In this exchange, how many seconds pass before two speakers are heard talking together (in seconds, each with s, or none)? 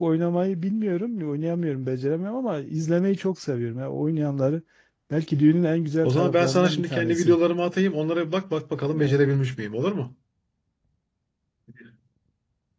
6.0 s